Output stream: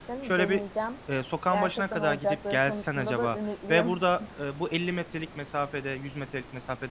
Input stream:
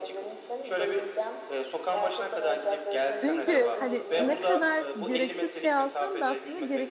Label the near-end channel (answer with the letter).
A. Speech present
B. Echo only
A